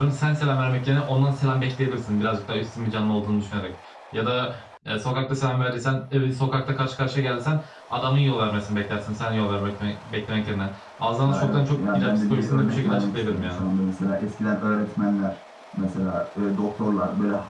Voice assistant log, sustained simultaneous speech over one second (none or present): present